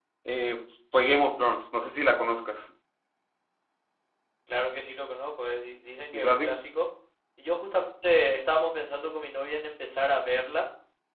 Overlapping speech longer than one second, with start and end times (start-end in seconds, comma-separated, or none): none